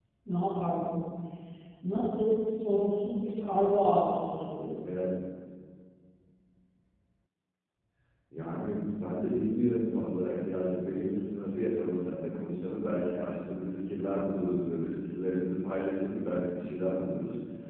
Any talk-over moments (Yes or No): No